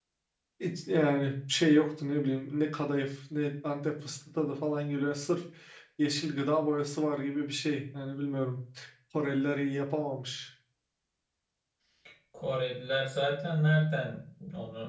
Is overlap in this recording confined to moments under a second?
Yes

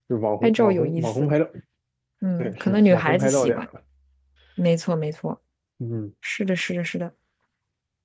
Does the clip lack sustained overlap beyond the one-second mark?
No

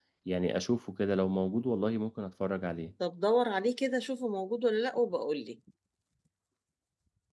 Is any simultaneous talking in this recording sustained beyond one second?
No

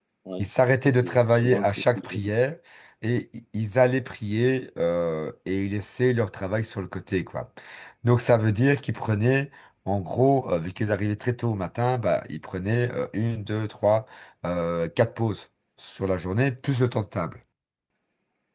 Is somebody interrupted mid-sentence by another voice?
Yes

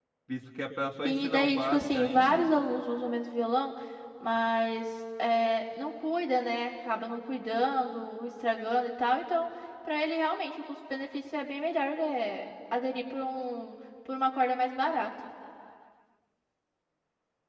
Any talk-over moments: Yes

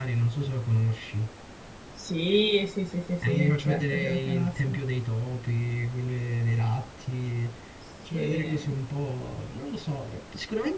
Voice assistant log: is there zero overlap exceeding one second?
No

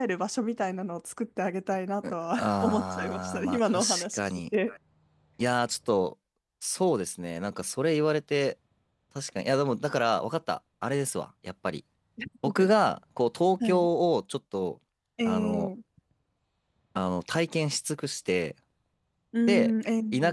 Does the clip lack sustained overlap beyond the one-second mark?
No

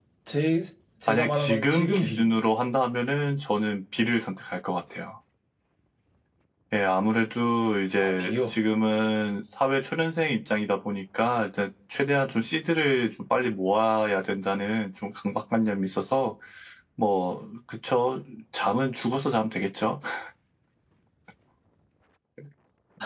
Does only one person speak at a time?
No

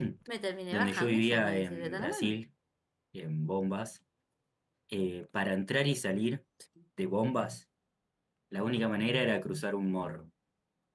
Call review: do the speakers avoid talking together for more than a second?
No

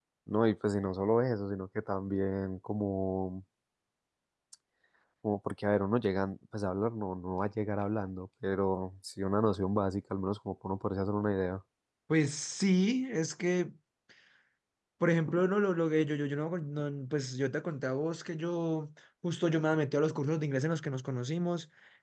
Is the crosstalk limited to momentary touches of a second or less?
Yes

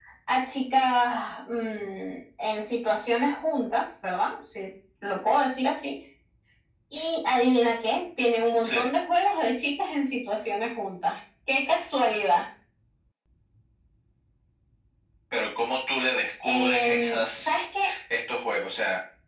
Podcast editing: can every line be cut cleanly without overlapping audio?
No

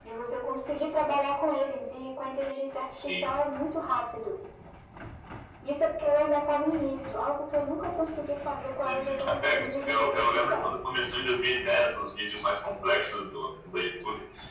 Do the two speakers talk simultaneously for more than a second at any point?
Yes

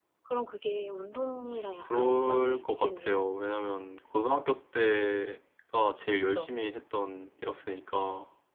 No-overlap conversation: No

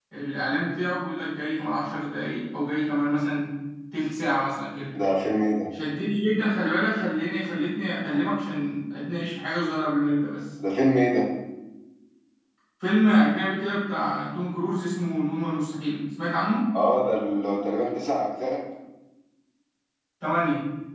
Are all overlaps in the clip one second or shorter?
Yes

